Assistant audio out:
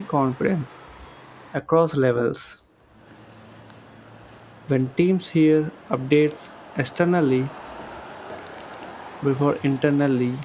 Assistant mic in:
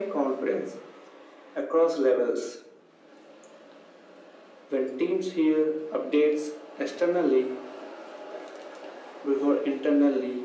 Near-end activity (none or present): none